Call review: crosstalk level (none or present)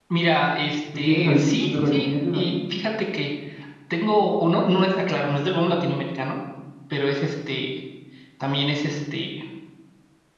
present